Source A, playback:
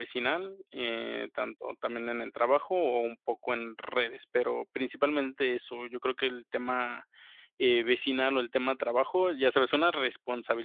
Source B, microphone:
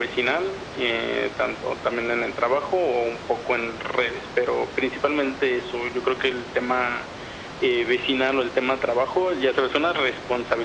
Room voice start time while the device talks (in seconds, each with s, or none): none